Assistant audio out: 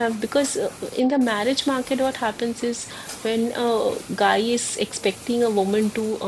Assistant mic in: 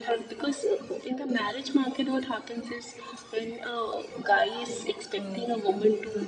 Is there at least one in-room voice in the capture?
Yes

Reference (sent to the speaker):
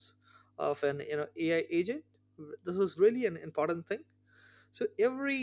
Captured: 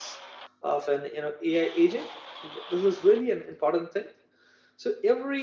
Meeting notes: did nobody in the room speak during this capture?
Yes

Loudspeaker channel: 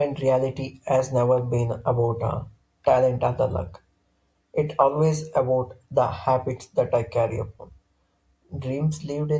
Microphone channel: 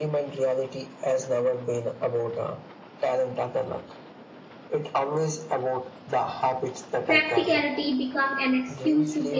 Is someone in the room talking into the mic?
Yes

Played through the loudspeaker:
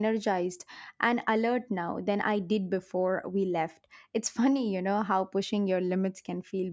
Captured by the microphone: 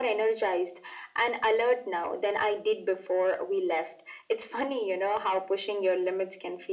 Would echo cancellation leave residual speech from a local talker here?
No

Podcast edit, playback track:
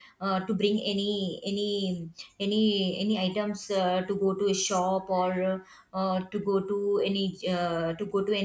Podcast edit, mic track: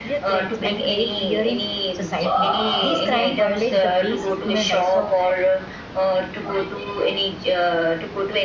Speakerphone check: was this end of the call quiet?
No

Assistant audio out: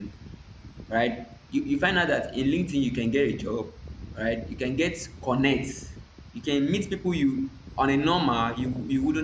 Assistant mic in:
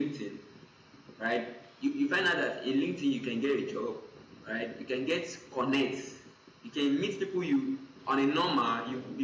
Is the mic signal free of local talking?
Yes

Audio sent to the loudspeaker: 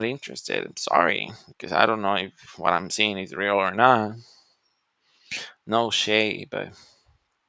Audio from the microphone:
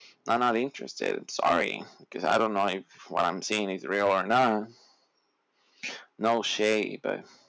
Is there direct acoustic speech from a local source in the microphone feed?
No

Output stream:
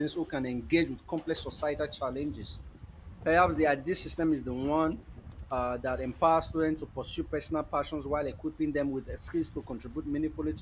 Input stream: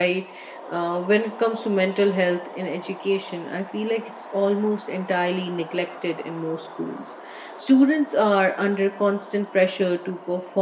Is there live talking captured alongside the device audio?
Yes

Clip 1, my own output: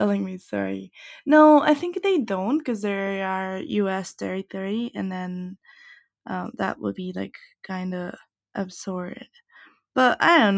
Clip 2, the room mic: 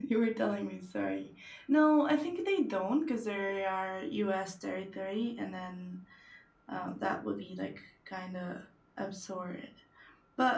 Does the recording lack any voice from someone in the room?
Yes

